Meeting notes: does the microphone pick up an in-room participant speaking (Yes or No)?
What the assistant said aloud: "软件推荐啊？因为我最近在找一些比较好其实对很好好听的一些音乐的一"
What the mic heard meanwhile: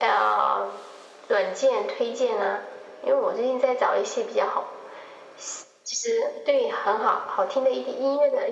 No